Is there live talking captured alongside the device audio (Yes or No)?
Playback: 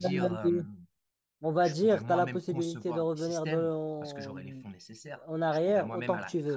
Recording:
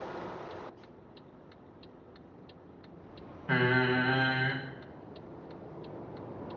Yes